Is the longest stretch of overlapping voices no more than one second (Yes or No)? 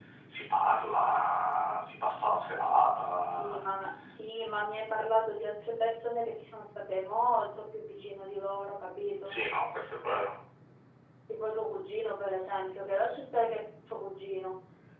Yes